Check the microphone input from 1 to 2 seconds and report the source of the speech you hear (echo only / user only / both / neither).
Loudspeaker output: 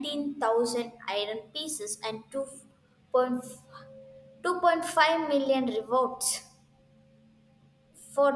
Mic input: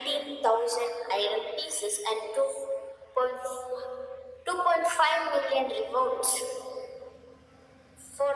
echo only